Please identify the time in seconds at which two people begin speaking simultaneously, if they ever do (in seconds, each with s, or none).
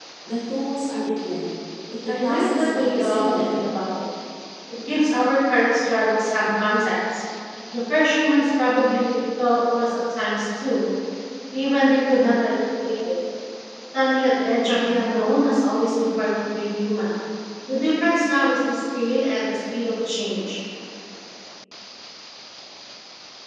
2.1 s